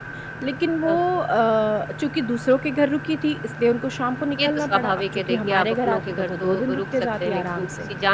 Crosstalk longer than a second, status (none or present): present